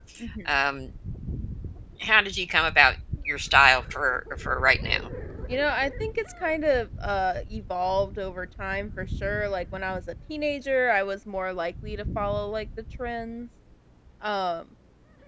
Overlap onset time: none

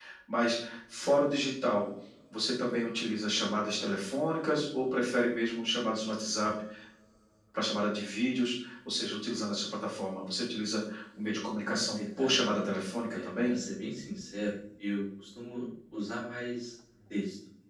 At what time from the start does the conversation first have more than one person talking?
11 s

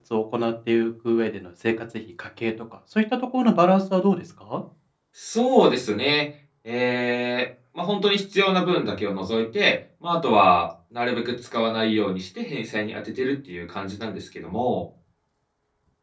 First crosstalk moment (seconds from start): none

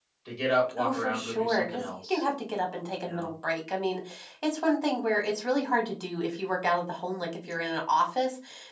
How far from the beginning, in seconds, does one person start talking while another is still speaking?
1 s

